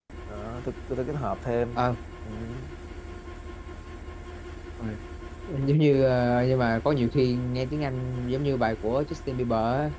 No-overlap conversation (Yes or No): Yes